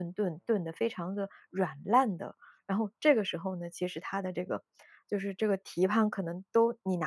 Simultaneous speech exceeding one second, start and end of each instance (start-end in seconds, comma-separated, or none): none